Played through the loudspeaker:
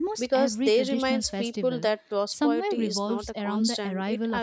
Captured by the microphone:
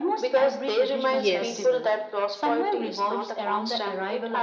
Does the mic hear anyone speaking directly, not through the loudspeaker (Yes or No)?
Yes